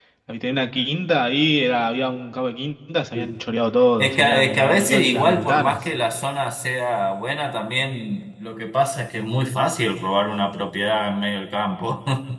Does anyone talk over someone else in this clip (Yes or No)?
Yes